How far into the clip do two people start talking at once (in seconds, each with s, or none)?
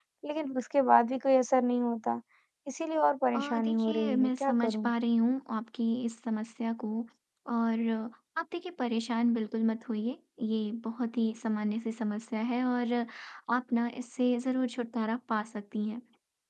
3.3 s